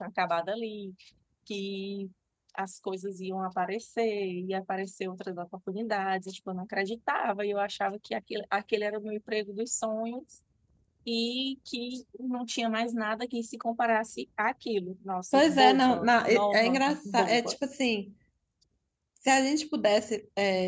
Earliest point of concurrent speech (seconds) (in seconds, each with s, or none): 15.3 s